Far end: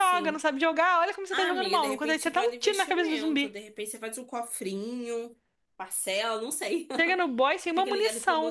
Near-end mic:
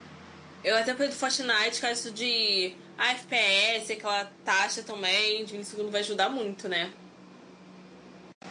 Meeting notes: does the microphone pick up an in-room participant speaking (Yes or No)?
Yes